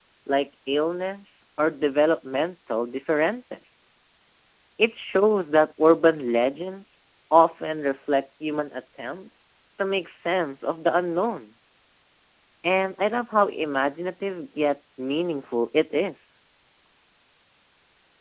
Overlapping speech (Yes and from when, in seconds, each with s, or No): No